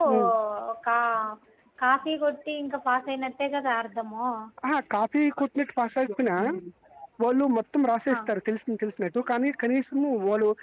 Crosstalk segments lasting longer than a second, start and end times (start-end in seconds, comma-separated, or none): none